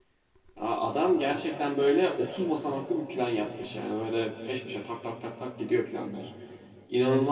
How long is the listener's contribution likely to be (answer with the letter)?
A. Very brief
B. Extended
B